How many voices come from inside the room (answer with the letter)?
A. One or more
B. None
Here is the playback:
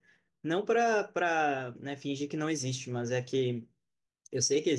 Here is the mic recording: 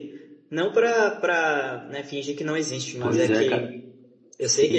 A